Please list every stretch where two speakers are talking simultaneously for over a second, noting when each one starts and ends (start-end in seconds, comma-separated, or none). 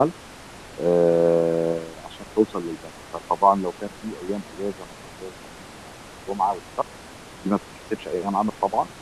none